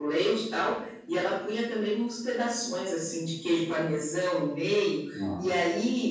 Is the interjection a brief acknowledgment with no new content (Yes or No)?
Yes